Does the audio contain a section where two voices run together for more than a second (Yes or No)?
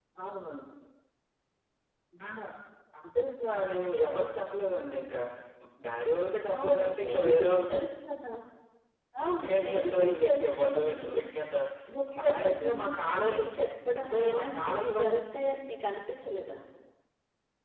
Yes